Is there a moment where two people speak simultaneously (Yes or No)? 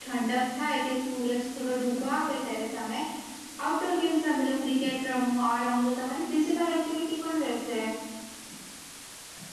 No